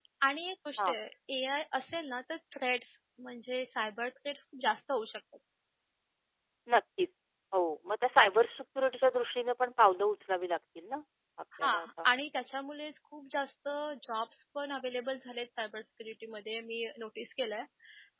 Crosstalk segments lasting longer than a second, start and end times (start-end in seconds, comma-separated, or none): none